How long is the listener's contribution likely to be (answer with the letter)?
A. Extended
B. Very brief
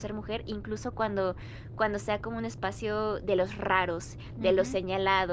B